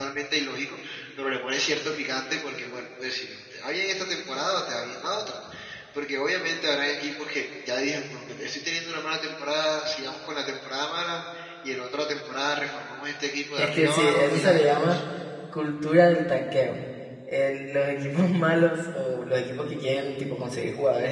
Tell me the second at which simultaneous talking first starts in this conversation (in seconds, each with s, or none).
13.6 s